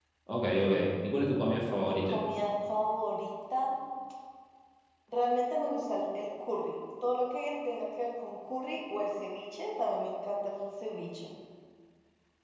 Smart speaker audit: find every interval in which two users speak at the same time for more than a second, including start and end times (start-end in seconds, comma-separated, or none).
none